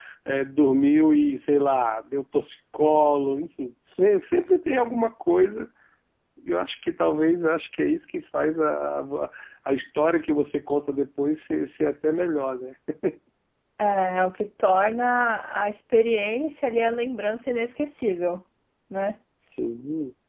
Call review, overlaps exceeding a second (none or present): none